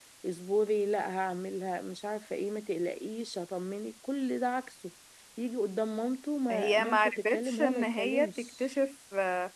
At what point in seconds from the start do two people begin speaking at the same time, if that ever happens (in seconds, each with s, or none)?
6.5 s